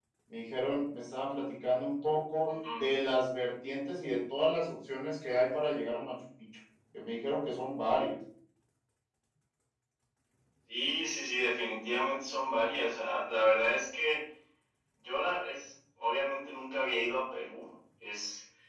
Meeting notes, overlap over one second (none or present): none